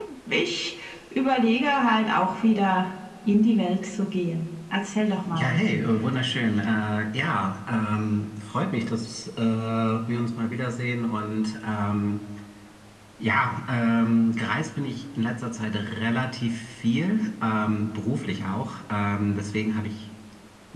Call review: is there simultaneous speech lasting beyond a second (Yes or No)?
No